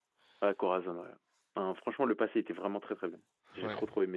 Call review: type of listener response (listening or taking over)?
taking over